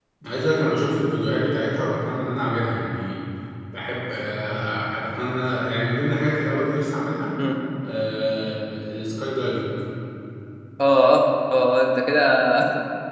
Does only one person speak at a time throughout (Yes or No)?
Yes